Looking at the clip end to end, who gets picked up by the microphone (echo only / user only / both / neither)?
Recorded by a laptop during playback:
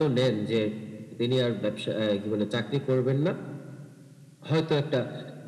echo only